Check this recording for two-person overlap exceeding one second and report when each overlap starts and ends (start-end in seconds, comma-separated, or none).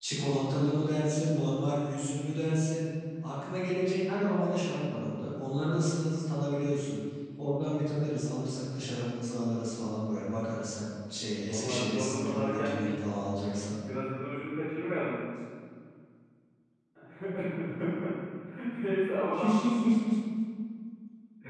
11.4-12.9